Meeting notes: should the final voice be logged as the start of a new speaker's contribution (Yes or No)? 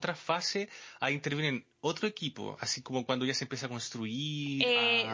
Yes